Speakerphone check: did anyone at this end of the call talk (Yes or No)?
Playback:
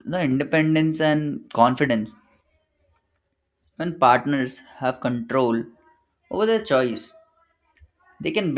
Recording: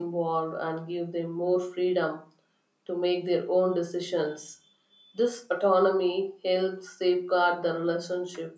Yes